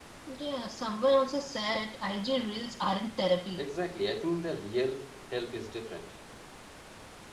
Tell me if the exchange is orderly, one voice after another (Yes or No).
Yes